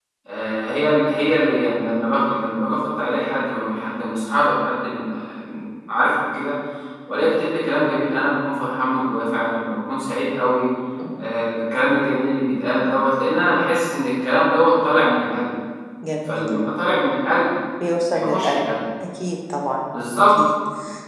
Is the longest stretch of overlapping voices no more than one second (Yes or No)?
Yes